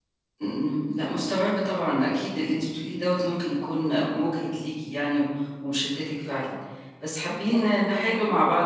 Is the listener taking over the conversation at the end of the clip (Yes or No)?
No